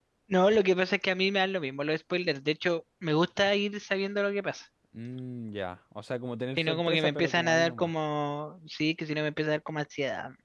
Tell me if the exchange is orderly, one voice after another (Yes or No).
No